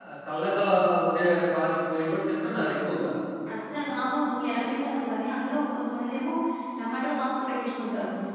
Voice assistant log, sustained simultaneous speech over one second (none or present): none